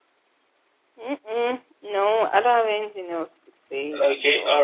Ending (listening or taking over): taking over